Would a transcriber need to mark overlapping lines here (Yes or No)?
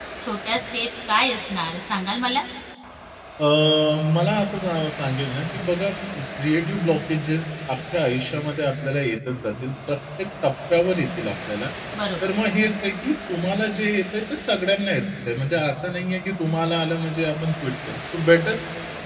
No